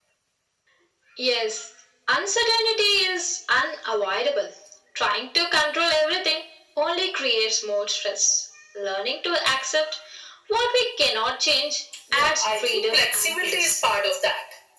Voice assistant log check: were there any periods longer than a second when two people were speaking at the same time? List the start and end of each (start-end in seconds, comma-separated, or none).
12.1-13.7